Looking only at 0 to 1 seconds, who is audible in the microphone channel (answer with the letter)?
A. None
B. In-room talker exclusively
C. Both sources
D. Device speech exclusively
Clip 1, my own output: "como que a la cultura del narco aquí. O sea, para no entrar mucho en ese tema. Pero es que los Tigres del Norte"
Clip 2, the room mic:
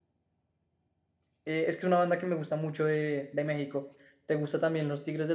A